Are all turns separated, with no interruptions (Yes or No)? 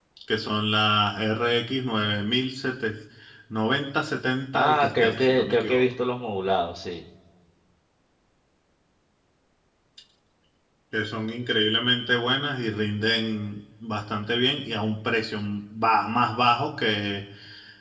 No